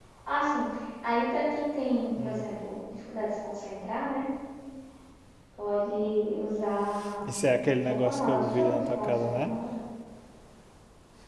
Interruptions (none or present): present